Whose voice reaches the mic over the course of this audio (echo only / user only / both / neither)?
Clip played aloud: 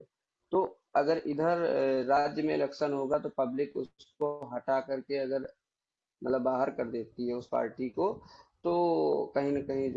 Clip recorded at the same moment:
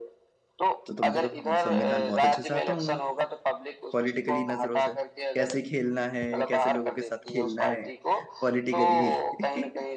both